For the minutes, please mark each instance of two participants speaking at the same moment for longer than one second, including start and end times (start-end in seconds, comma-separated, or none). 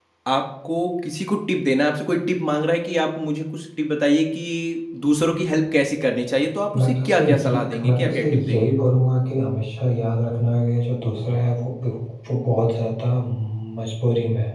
6.8-8.8